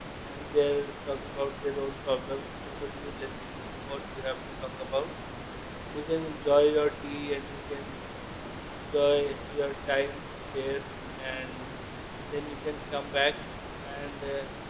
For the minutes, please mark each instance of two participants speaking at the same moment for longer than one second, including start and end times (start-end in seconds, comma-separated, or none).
none